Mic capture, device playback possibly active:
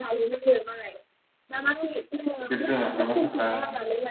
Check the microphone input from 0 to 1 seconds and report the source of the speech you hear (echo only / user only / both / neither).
echo only